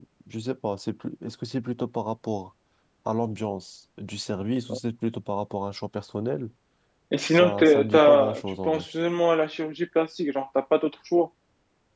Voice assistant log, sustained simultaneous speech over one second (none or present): present